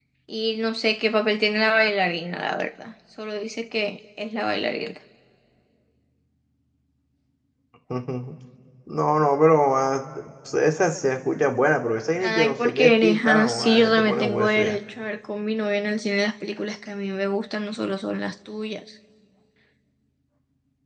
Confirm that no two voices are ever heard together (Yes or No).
No